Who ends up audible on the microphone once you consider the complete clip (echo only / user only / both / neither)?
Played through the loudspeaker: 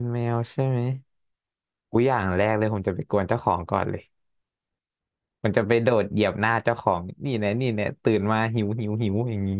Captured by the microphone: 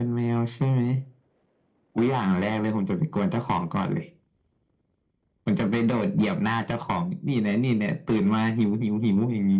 echo only